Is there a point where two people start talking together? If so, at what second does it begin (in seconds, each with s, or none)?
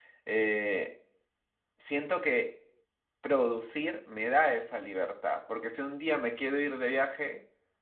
none